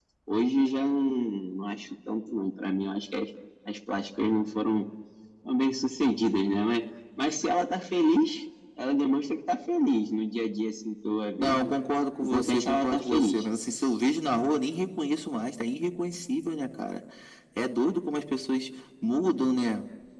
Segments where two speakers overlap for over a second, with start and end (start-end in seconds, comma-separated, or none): 12.2-13.4